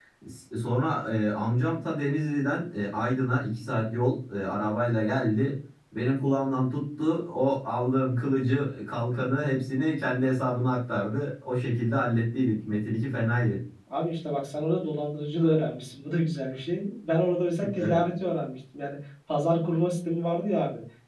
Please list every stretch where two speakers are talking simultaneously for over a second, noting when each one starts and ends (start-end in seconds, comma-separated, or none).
none